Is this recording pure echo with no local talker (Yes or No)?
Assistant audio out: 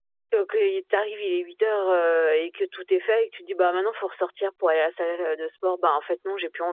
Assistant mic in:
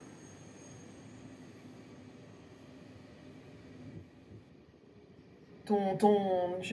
No